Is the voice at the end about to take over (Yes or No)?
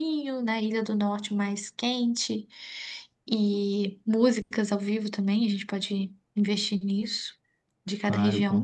Yes